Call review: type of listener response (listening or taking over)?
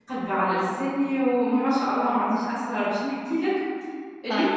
listening